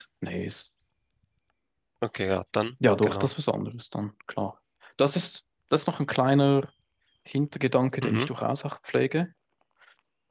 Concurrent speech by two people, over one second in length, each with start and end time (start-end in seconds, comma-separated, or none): none